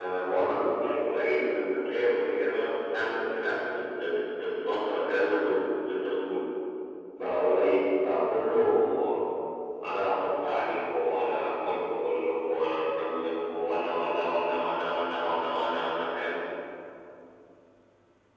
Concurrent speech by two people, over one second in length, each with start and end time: none

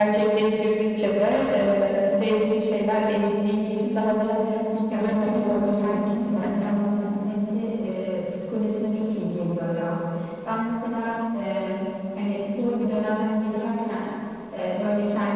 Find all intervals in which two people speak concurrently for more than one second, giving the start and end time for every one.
4.9-6.7

